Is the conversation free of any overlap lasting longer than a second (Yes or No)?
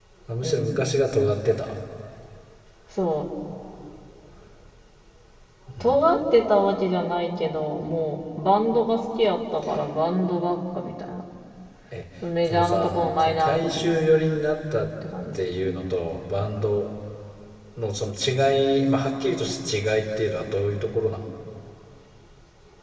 No